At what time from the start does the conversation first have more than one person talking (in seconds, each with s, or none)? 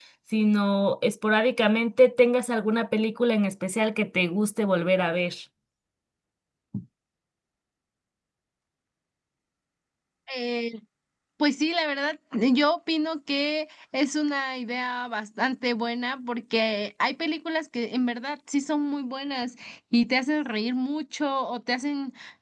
none